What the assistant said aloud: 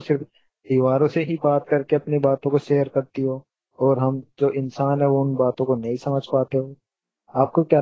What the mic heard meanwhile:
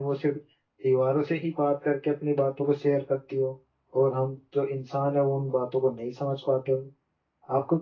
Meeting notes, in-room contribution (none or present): none